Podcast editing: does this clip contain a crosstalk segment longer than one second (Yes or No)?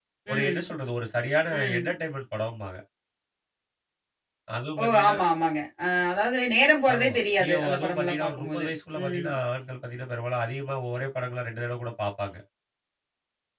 Yes